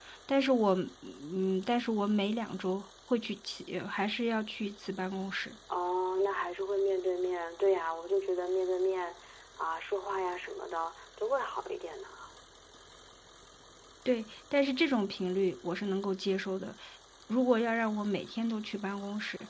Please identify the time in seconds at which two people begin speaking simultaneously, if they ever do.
none

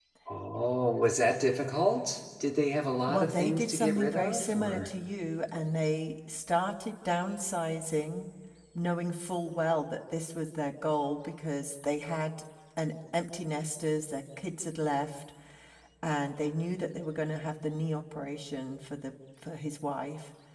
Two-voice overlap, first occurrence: 3.1 s

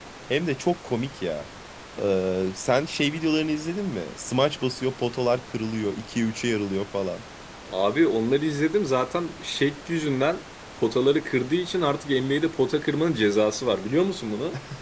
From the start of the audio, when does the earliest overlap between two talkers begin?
none

